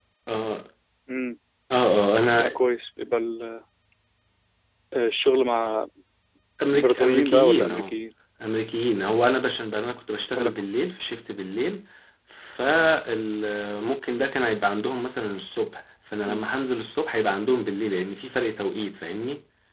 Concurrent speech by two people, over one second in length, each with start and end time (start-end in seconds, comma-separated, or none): 6.7-8.0